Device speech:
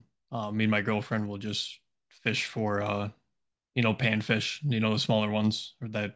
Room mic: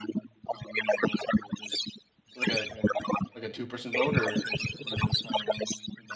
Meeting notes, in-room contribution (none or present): present